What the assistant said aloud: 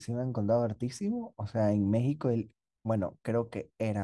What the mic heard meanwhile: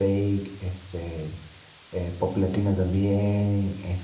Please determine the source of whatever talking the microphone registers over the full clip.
user only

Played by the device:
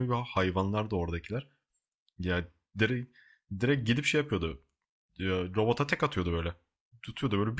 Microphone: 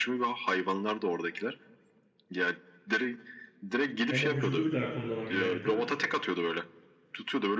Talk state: both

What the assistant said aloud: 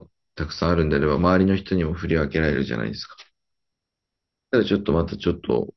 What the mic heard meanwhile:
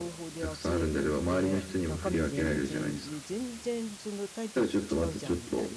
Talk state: both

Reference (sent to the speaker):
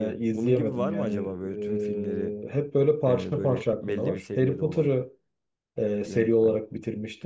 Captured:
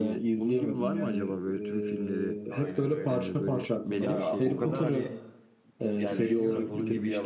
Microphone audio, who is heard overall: both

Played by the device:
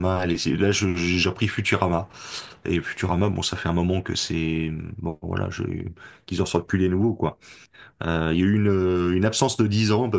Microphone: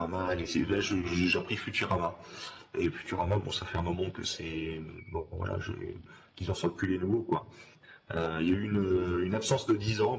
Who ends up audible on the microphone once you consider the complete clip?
echo only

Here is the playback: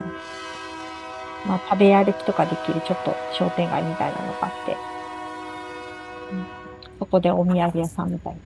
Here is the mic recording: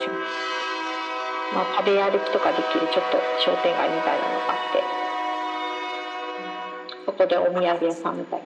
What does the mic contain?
echo only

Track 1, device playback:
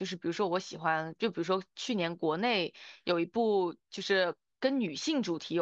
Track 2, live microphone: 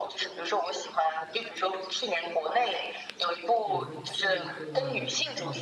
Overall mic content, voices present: both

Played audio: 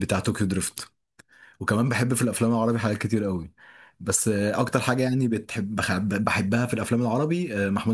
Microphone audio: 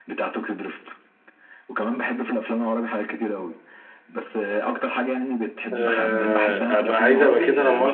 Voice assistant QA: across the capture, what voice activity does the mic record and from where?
both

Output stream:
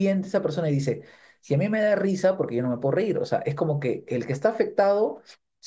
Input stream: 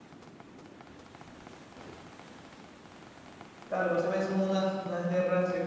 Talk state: user only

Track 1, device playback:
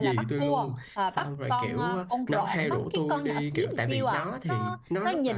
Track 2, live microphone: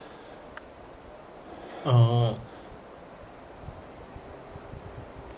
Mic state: user only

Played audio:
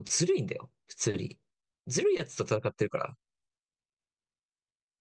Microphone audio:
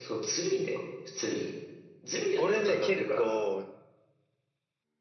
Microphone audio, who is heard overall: both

